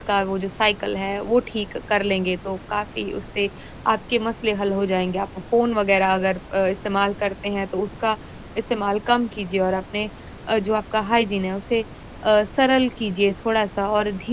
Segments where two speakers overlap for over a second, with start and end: none

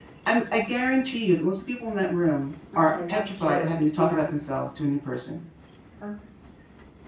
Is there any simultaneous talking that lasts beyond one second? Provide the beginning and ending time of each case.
2.8-4.3

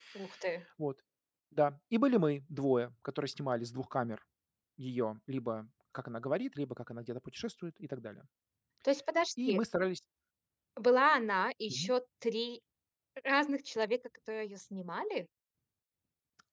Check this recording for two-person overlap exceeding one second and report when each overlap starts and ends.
none

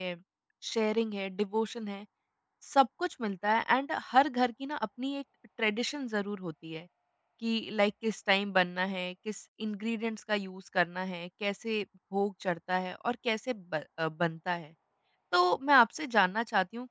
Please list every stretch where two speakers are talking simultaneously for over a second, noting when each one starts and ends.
none

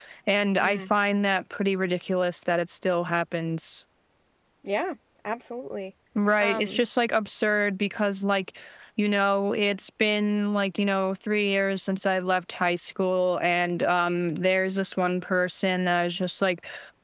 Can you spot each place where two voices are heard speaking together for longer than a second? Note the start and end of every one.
none

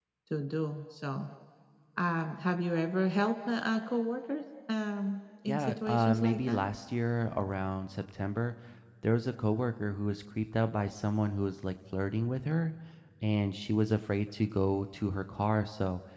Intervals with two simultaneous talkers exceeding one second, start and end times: 5.4-6.7

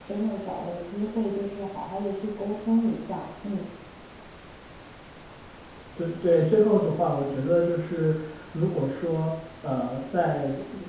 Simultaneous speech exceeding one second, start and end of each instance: none

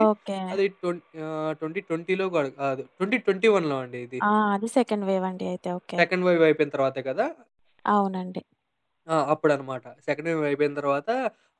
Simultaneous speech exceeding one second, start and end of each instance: none

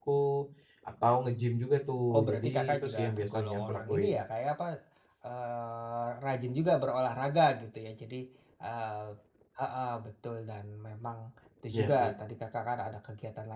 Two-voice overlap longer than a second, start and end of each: 2.1-4.2

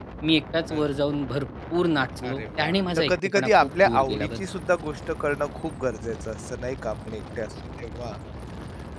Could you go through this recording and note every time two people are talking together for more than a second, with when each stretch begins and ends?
2.2-4.4

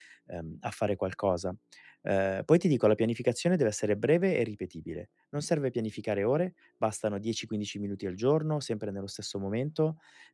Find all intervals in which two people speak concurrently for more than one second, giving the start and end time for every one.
none

